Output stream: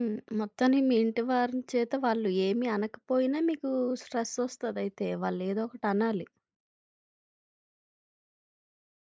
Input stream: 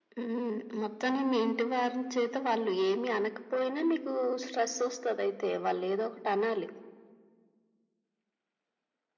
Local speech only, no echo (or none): none